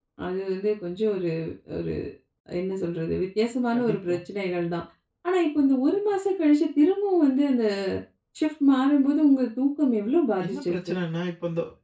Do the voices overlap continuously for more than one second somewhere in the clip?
No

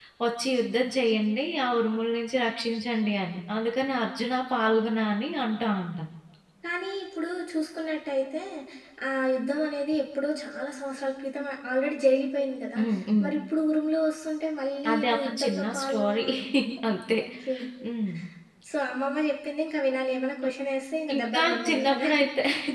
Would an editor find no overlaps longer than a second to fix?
No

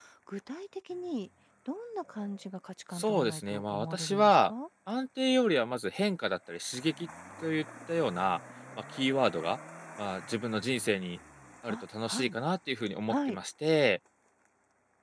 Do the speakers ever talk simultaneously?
Yes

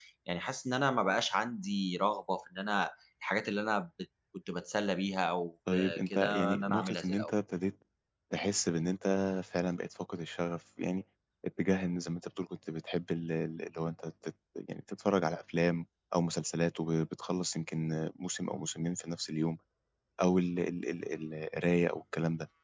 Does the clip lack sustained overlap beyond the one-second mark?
No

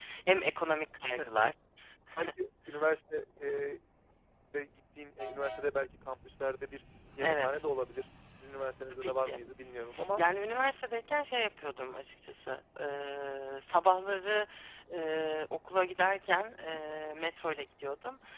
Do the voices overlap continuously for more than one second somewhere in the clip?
No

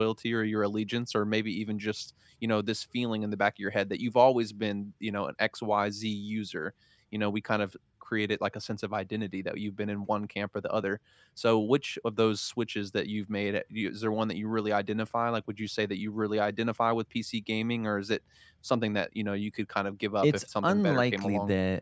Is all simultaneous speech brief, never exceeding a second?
No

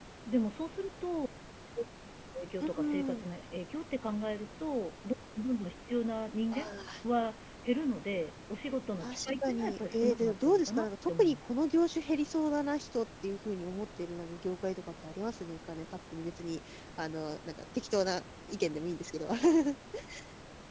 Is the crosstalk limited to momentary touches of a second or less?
No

